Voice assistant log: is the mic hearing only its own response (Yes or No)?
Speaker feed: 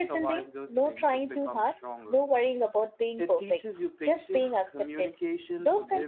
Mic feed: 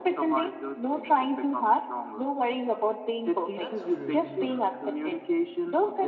No